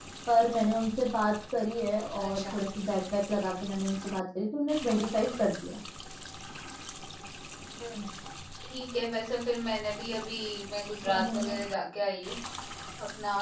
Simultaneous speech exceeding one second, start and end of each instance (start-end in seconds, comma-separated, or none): none